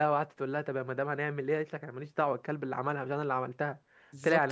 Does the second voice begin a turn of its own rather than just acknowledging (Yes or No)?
No